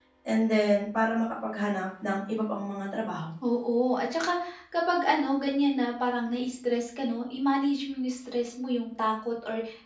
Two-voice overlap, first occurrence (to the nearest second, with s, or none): none